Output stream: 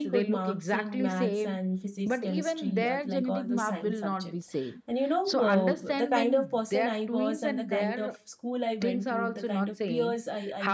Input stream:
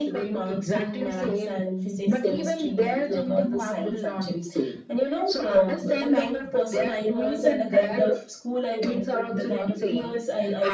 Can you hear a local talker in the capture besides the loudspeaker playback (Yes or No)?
No